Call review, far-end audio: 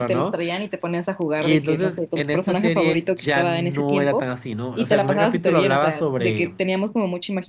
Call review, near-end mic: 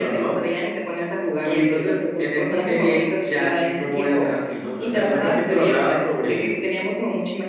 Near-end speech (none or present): none